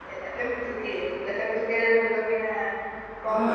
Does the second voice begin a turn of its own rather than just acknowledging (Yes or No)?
Yes